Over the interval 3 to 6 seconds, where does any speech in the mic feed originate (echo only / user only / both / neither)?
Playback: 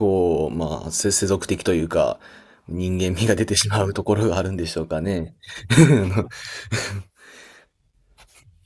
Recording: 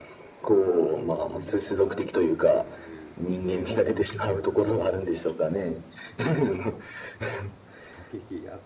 both